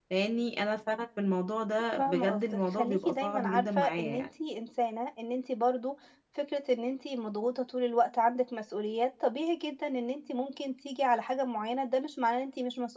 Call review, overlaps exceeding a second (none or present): present